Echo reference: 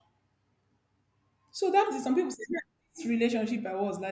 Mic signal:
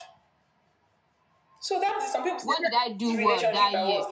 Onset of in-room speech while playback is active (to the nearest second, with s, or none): 2 s